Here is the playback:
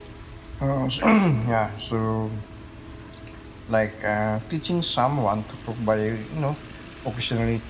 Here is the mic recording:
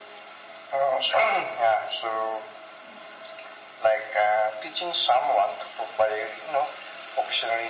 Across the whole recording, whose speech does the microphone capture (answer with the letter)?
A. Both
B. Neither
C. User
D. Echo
D